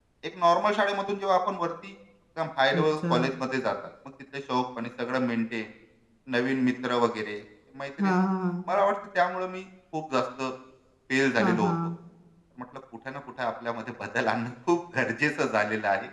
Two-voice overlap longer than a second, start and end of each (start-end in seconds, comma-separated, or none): none